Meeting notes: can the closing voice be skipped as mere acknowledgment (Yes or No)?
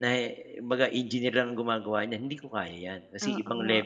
No